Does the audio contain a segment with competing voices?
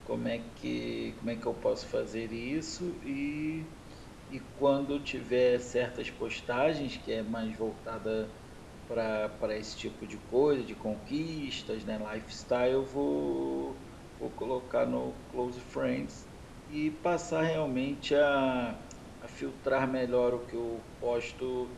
No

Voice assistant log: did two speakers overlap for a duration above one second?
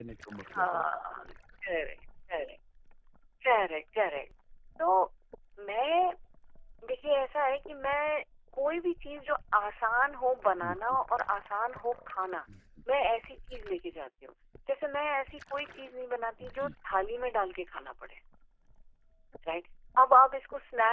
No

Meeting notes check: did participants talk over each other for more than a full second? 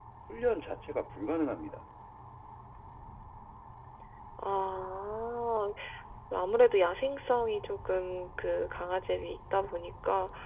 No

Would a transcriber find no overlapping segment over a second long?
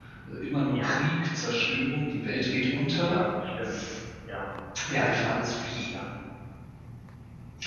Yes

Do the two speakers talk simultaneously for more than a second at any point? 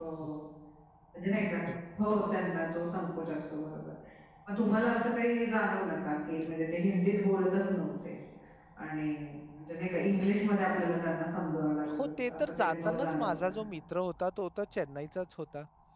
Yes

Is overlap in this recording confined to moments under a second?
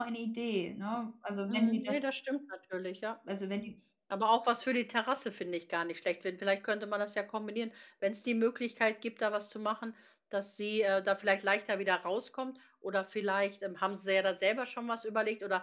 Yes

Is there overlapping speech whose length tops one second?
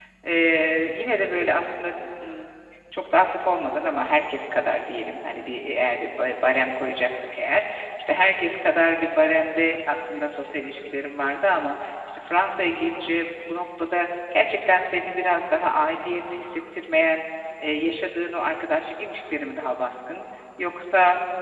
No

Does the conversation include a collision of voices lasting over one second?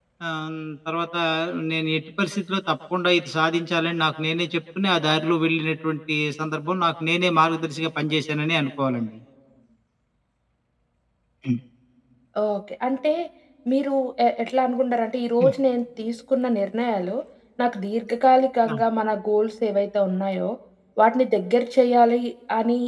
No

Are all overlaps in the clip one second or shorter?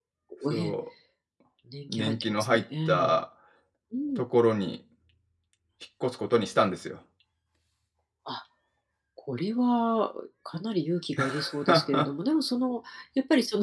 No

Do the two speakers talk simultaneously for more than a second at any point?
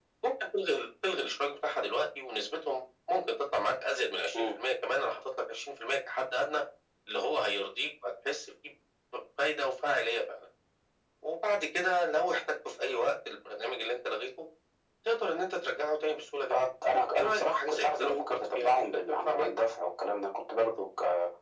Yes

